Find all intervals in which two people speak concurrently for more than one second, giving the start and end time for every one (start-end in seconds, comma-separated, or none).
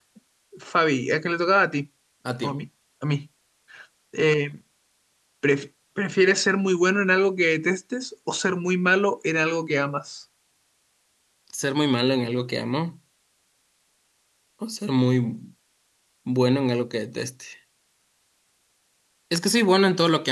none